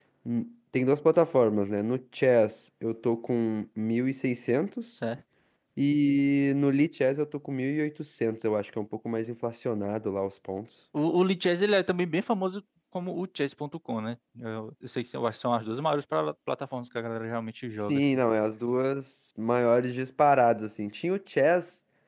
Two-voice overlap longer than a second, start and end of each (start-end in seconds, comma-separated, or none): none